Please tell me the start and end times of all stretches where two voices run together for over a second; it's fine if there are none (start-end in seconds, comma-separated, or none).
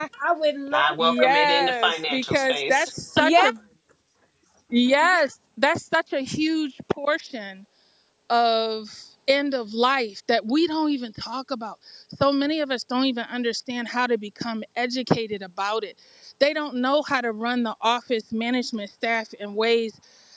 0.7-2.9